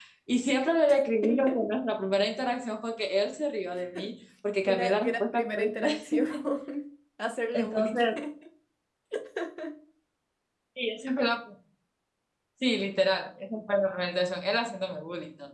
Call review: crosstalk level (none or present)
present